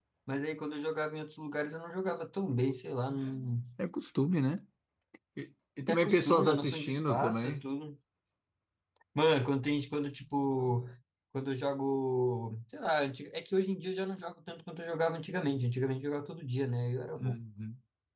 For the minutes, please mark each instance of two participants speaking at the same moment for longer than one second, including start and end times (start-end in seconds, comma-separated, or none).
5.9-7.6